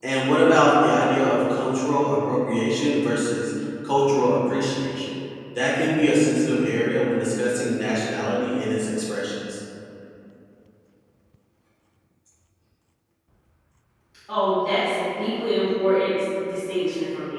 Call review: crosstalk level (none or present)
none